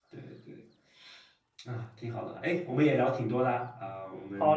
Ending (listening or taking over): taking over